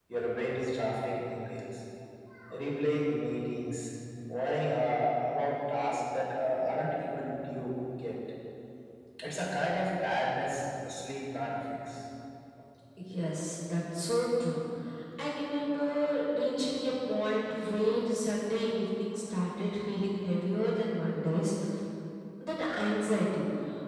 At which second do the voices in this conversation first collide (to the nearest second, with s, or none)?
none